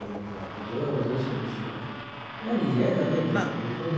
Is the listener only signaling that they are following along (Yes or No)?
Yes